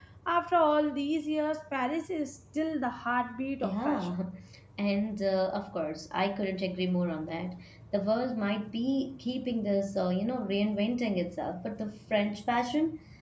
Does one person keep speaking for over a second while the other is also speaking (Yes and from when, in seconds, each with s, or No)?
No